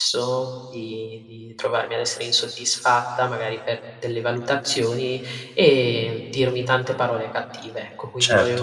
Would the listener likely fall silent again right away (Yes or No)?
Yes